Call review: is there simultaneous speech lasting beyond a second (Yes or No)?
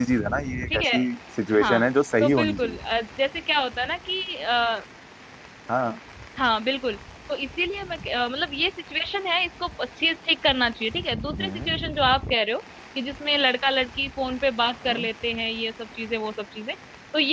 No